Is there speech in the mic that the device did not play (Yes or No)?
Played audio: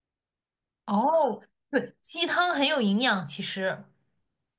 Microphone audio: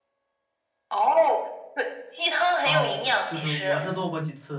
Yes